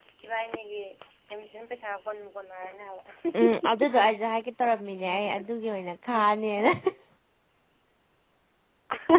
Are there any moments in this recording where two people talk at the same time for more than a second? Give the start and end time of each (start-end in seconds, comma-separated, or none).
none